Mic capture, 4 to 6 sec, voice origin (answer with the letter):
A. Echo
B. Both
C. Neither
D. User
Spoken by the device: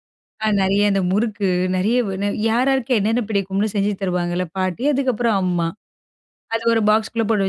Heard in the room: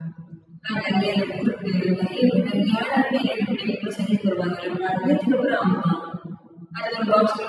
A